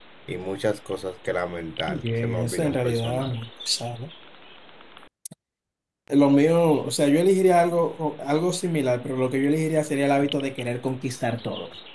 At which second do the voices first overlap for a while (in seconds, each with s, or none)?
1.9 s